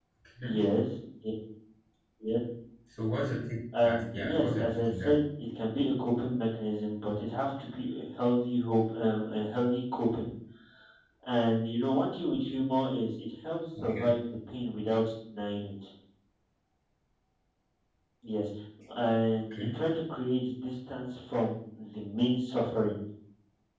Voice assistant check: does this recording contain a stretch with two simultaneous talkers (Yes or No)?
Yes